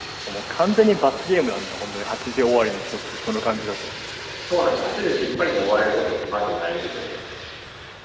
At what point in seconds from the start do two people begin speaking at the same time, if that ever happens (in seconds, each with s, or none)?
none